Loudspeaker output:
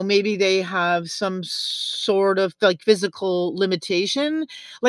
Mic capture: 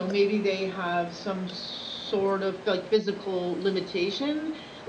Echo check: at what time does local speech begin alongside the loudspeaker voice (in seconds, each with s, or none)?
none